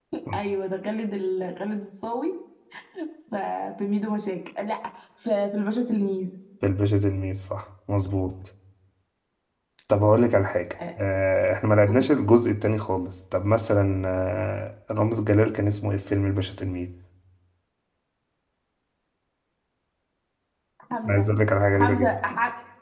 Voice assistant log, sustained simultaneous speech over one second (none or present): none